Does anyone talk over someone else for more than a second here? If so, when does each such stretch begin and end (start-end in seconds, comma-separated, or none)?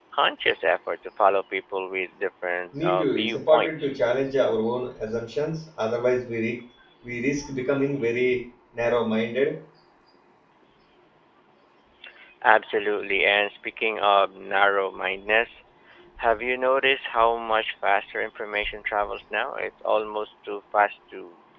2.8-4.0